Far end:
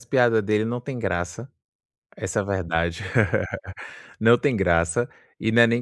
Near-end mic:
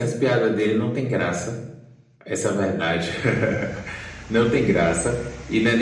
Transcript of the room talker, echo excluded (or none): none